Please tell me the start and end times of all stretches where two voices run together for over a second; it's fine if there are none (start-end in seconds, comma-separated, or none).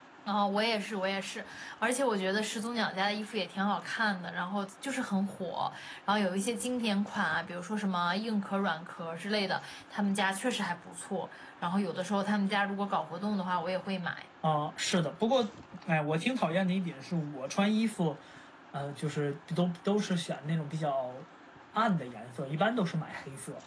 none